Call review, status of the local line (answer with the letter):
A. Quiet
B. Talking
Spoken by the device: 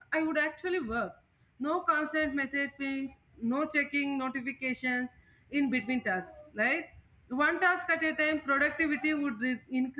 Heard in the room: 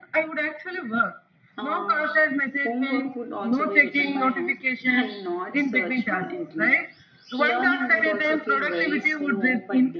B